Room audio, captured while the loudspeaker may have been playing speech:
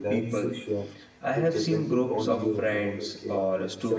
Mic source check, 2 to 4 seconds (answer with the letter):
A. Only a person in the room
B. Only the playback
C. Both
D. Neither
C